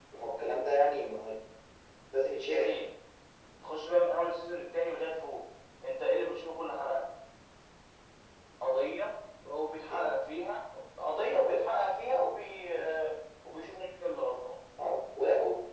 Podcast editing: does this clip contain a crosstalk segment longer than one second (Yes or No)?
No